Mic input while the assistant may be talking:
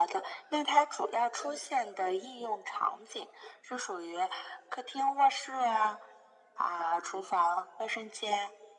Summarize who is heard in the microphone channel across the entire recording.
echo only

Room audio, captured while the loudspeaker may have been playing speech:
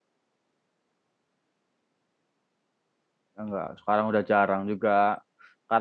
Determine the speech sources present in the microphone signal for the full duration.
user only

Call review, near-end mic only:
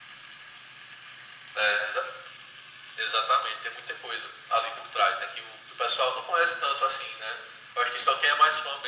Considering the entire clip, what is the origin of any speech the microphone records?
echo only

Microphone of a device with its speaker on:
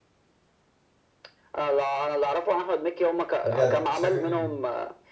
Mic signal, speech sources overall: both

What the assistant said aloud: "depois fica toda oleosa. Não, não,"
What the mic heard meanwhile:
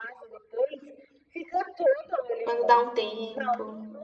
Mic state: both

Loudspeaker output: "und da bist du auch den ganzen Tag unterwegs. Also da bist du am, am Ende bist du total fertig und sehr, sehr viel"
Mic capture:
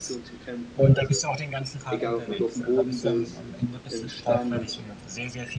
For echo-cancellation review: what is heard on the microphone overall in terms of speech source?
both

